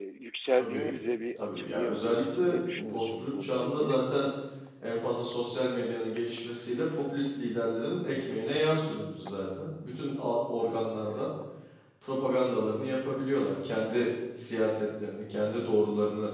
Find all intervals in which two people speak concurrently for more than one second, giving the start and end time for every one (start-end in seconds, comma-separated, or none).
1.4-4.0